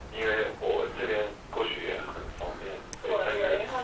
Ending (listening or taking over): taking over